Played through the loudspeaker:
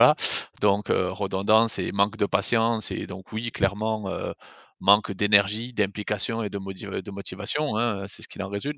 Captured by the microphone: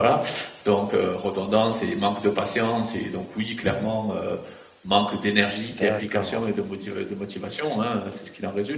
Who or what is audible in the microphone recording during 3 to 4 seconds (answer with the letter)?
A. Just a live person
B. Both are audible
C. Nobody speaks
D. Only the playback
D